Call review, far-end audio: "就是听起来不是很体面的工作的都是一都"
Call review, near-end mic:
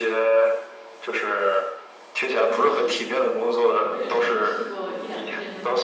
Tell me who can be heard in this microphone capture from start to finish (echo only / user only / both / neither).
both